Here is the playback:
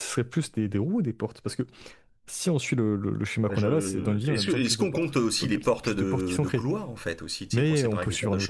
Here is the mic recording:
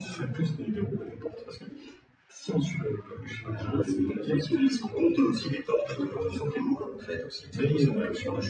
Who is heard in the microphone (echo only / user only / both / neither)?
echo only